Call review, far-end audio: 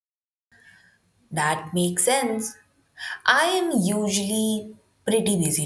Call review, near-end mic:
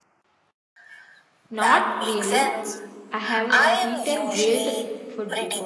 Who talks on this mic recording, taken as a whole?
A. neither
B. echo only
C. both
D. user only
C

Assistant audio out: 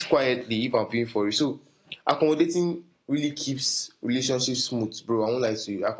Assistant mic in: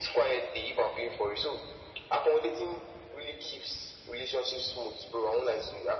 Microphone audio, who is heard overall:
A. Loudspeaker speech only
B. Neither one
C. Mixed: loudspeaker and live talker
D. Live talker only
A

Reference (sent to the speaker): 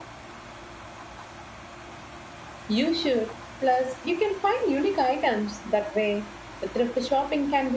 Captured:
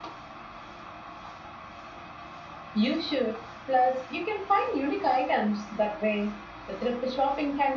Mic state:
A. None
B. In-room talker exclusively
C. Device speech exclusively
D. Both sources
C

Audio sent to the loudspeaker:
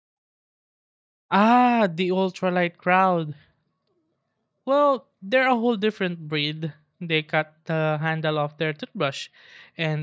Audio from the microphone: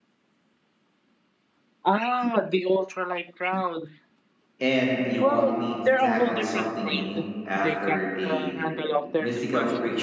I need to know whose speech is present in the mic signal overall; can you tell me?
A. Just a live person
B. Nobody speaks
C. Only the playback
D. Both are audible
D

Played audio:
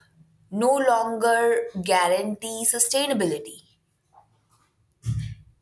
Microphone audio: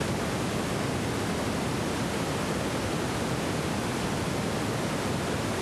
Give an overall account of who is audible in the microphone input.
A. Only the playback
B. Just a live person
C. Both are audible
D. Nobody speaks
D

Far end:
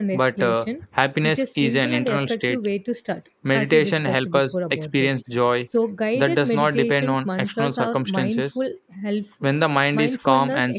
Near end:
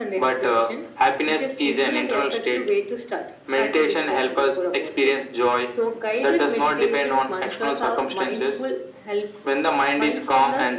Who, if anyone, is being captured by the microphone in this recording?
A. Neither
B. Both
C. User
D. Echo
D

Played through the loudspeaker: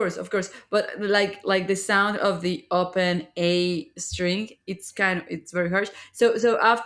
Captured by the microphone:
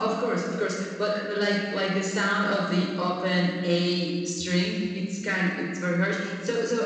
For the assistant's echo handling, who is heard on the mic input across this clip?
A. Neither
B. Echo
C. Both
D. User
B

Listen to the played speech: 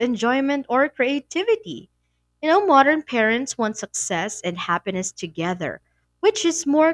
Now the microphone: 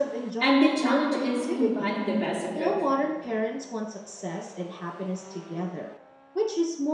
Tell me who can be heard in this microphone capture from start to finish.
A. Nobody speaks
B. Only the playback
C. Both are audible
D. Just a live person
C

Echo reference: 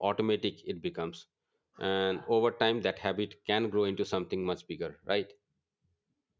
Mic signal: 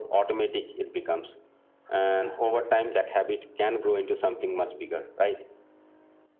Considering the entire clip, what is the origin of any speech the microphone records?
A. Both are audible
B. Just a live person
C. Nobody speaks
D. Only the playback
D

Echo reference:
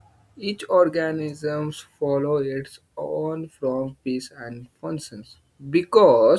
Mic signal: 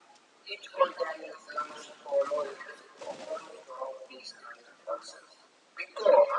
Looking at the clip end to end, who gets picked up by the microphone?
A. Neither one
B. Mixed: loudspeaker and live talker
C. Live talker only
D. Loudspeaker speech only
D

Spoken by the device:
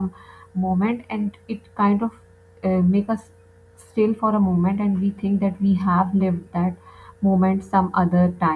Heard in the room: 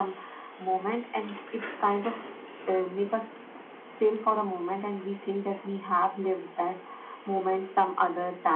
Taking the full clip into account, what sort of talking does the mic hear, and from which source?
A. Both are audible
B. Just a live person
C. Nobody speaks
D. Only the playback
D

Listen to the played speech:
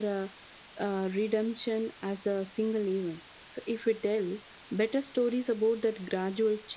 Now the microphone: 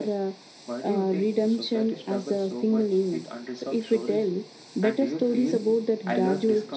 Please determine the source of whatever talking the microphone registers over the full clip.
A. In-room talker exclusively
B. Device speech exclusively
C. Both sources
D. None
C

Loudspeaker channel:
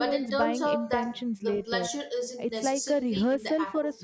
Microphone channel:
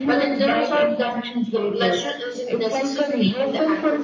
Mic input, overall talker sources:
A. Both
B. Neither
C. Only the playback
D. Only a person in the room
C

